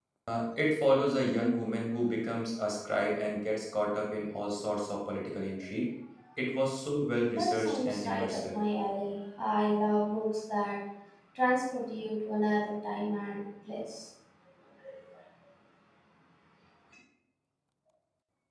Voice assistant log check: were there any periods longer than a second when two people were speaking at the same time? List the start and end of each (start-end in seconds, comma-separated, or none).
7.3-8.5